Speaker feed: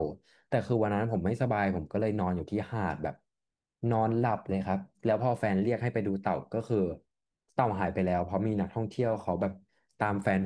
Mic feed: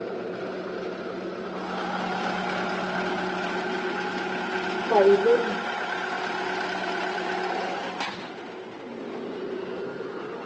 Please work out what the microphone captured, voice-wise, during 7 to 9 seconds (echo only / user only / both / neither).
neither